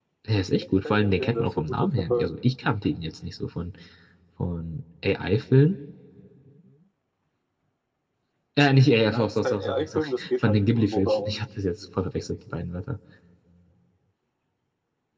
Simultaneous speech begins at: 0.5 s

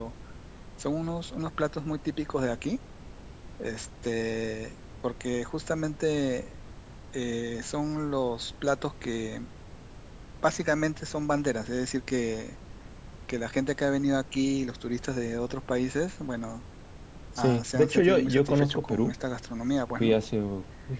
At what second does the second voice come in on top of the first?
17.4 s

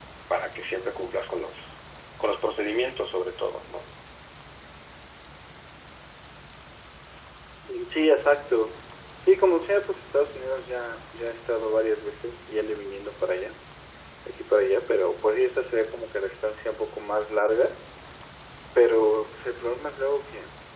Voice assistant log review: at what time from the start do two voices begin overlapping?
none

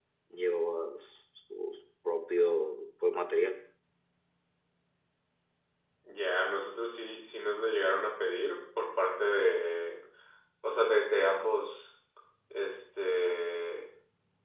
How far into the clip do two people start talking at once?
none

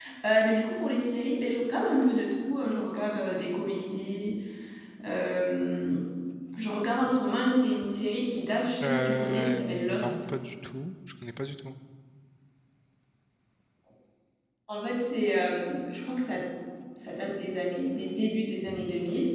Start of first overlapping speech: 8.8 s

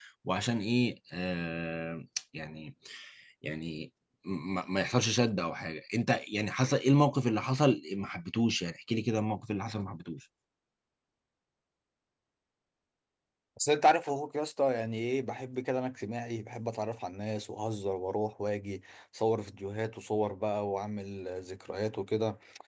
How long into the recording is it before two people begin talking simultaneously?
none

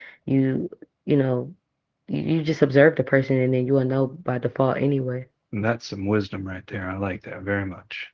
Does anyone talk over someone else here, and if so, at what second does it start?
none

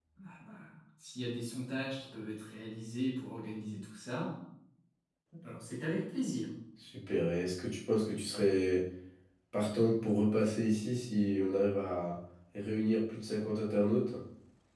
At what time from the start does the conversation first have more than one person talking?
none

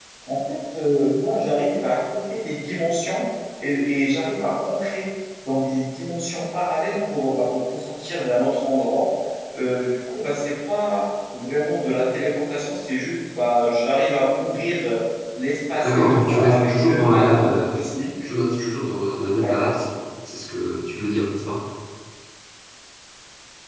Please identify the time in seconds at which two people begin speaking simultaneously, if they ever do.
15.8 s

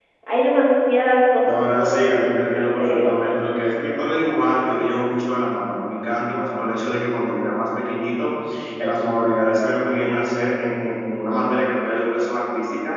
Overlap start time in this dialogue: 1.4 s

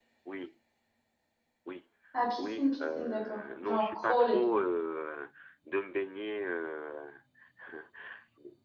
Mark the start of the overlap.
2.4 s

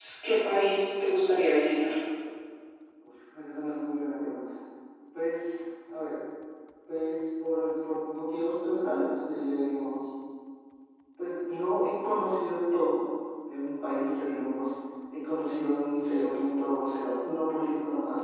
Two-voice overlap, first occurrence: none

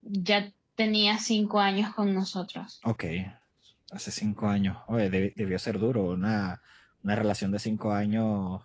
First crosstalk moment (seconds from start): none

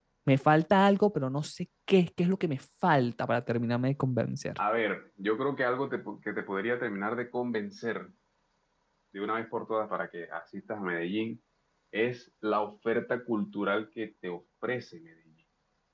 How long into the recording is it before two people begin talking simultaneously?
none

